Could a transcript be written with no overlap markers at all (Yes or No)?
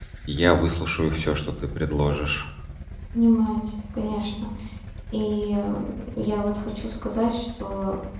Yes